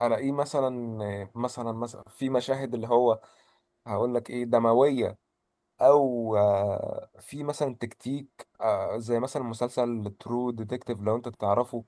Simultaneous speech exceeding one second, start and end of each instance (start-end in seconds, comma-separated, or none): none